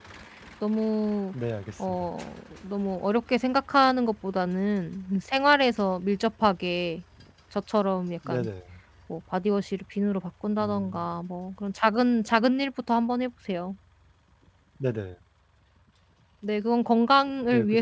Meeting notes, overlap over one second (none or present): none